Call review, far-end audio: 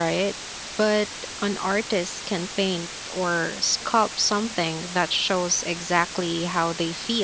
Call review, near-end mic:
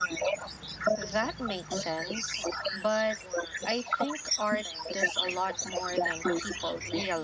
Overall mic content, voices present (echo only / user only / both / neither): both